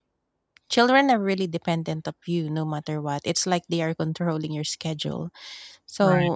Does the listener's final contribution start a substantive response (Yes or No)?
No